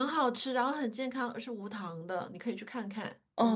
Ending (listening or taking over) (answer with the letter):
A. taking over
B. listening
A